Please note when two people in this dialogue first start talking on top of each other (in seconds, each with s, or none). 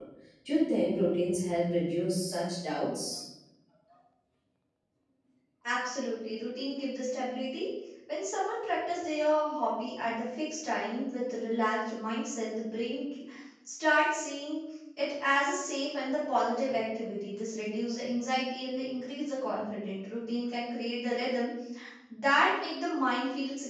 none